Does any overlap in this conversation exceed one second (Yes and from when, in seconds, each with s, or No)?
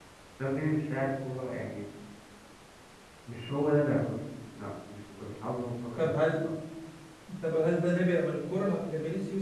No